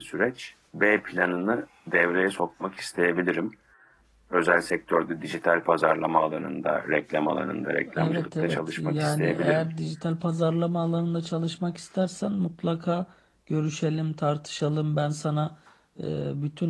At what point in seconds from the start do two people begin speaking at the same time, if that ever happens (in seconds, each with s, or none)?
7.9 s